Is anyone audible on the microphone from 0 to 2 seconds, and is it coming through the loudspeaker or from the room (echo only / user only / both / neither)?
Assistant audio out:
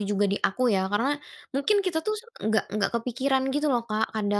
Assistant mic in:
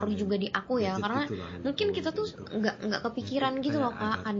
both